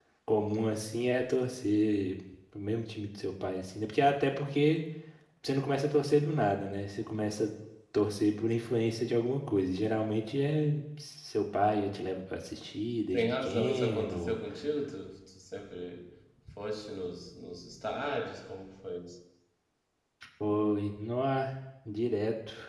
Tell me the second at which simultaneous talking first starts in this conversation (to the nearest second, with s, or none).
13 s